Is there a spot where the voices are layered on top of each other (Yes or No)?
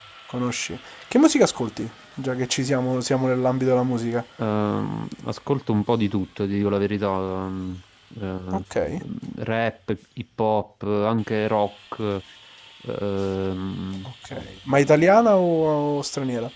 No